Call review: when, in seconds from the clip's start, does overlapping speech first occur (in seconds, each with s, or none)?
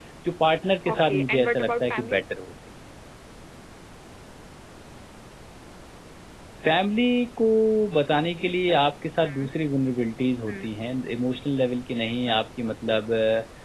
0.9 s